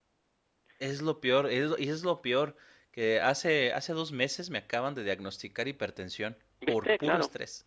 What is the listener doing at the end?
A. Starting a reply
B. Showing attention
A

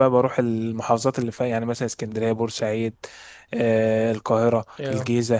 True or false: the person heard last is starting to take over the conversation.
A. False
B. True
A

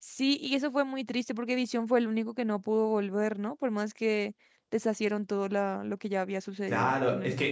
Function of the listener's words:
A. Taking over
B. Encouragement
A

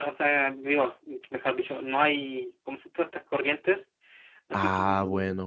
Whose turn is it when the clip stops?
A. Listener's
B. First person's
A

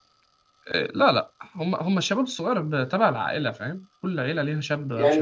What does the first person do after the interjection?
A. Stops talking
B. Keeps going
A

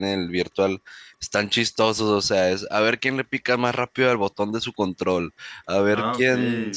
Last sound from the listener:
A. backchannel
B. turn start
A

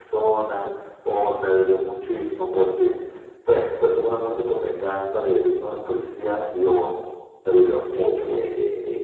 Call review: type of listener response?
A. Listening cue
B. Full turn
B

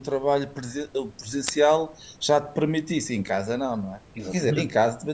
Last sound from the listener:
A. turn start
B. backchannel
B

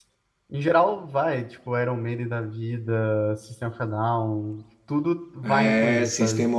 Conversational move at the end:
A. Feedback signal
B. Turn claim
B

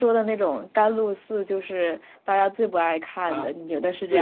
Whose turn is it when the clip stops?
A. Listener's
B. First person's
A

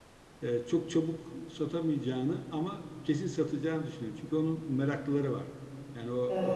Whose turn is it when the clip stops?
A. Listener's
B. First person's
B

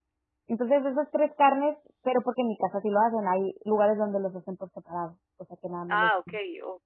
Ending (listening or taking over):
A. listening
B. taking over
B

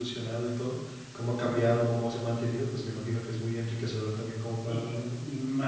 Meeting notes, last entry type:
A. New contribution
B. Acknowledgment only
A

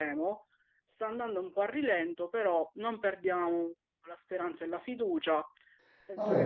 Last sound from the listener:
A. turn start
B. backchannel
A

